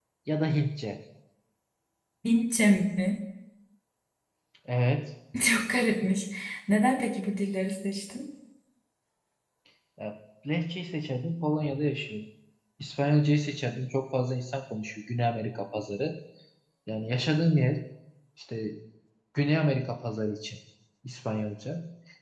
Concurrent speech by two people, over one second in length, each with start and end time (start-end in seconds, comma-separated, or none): none